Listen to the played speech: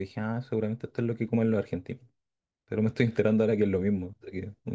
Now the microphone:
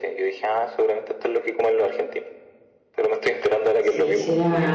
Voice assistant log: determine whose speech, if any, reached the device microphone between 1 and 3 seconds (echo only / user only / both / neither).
echo only